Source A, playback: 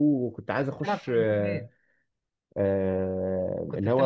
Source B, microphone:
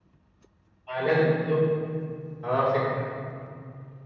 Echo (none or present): none